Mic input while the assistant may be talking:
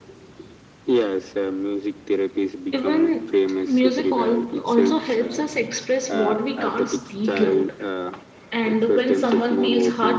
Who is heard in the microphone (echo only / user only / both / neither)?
both